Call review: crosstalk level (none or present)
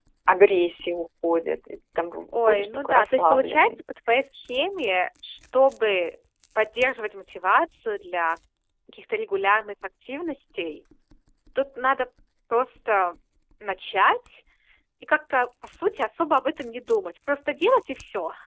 present